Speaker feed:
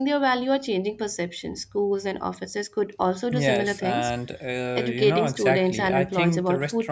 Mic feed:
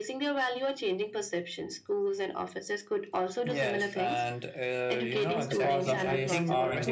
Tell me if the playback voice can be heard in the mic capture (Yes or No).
Yes